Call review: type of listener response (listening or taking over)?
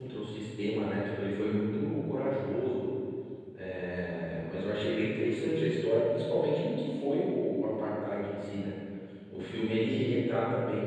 listening